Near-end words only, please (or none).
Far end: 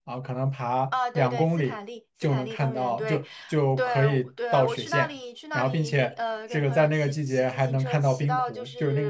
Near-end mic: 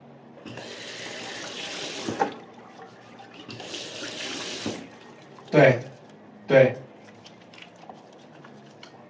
对对，